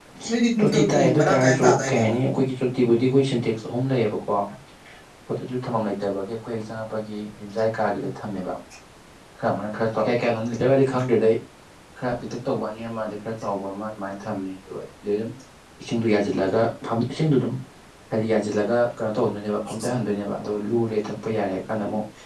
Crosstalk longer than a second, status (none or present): present